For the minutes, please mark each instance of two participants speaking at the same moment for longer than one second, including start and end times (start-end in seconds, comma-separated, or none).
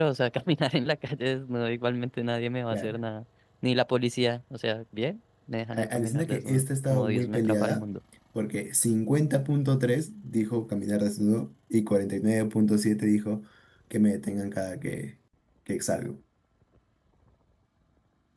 5.7-7.8